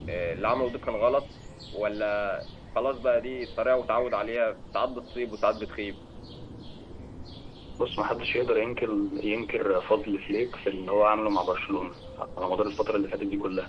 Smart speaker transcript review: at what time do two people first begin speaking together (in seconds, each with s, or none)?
none